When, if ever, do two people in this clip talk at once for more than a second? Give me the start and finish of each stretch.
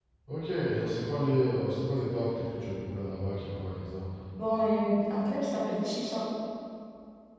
none

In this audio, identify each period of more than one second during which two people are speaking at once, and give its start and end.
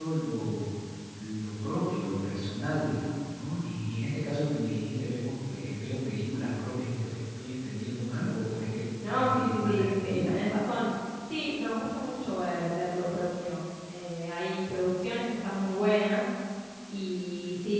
9.1-10.3

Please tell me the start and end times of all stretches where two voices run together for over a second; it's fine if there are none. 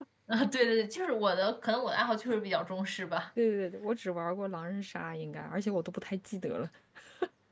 none

